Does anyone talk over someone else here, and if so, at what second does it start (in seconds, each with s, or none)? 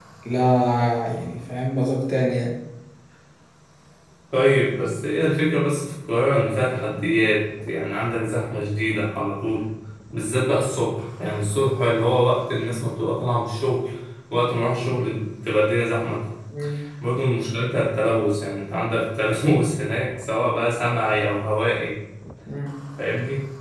none